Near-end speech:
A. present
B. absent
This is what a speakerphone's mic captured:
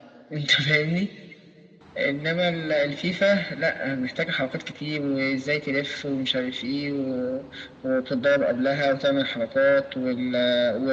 B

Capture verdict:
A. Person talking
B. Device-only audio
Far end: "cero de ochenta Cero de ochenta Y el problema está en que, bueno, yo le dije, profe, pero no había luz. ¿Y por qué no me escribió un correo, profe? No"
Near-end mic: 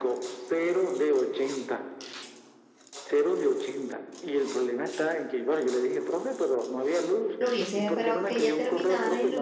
A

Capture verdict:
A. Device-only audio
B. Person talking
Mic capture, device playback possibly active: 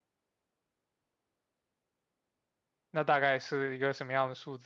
B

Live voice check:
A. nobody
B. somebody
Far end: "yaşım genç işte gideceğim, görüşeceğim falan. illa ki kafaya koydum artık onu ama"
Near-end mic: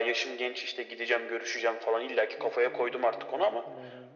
B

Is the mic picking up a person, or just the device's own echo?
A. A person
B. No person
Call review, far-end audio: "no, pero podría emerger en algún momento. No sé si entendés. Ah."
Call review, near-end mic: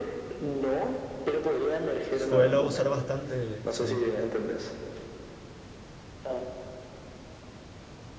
A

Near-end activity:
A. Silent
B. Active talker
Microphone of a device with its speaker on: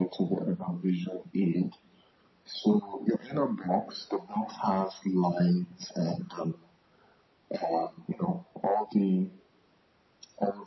A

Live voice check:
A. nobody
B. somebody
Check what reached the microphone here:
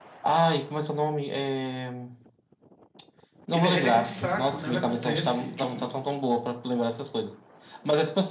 B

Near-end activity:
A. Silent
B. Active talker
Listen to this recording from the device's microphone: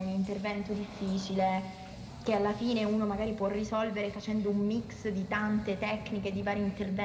A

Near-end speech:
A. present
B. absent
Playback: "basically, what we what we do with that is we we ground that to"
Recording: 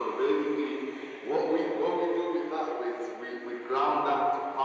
B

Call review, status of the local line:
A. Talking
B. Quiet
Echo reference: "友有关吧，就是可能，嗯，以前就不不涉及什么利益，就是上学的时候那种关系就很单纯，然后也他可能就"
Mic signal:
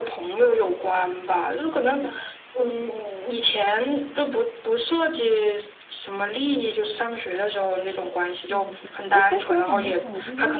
A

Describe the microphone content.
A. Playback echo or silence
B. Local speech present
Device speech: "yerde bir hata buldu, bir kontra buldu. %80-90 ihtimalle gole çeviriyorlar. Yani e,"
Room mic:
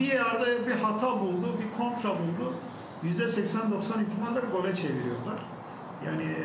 A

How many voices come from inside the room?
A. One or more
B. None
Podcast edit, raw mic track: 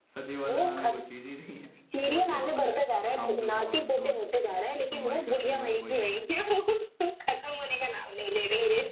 A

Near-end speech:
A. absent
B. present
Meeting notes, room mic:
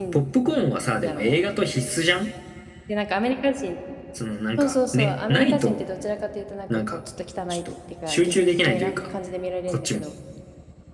B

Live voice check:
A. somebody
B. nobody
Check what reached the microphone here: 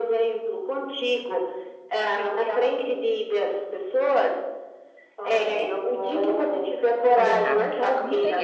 A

